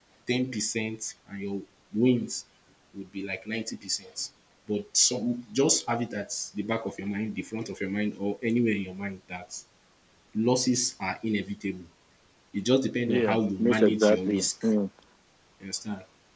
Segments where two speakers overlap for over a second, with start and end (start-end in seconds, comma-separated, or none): 13.1-14.4